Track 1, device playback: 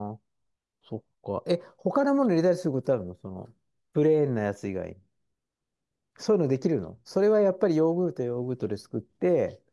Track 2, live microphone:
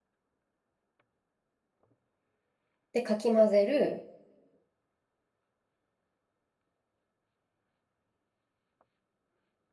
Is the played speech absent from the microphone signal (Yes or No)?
Yes